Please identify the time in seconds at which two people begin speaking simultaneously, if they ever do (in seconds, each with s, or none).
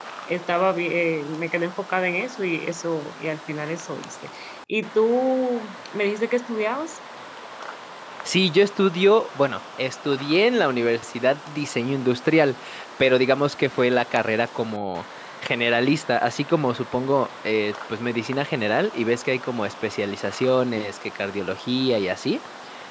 none